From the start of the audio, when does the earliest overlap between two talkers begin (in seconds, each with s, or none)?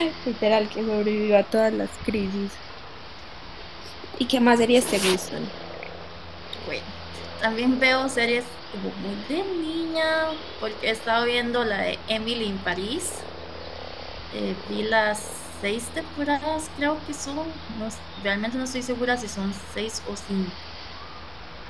none